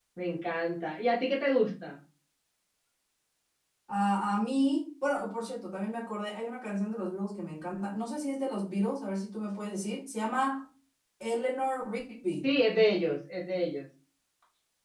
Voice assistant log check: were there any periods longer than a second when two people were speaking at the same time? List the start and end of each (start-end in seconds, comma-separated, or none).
none